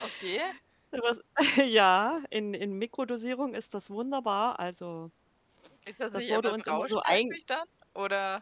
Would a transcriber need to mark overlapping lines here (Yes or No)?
Yes